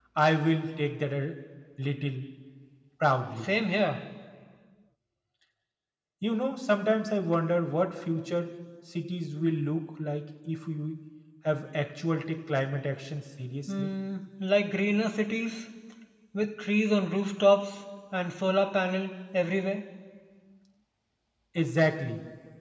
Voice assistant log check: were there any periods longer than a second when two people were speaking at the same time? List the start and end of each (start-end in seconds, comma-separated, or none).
none